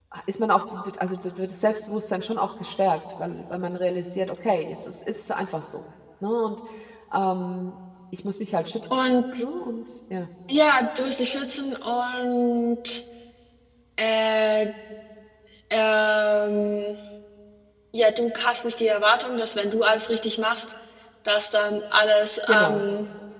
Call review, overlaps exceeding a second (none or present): none